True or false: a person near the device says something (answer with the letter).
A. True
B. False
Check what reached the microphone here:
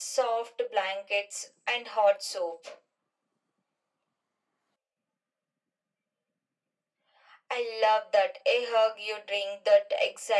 B